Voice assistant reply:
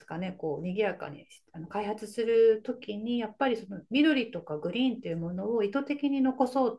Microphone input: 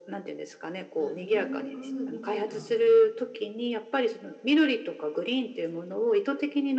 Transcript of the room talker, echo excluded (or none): あ、留学みたいな